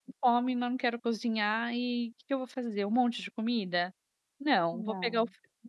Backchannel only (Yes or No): Yes